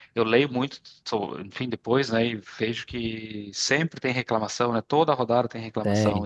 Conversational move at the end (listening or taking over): taking over